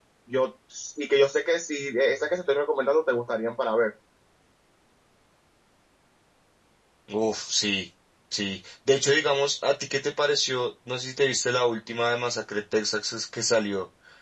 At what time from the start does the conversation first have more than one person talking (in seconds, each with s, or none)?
none